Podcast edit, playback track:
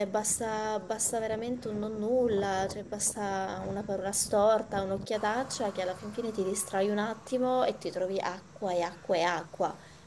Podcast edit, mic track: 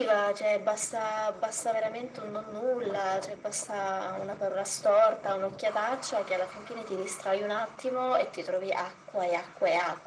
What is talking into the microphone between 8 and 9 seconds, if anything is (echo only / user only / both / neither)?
echo only